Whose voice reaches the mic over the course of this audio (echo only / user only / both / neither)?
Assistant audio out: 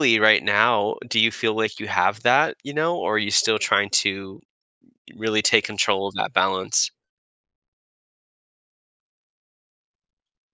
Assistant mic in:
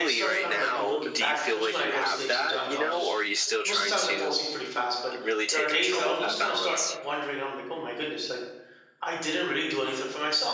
both